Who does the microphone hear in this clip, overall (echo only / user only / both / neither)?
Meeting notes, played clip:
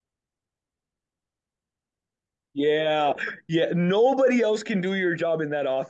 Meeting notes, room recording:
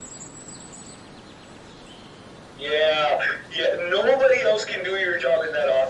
echo only